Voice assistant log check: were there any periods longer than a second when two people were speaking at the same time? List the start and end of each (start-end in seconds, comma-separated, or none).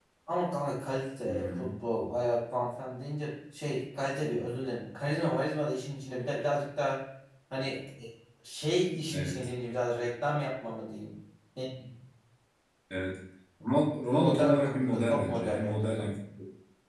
14.2-16.1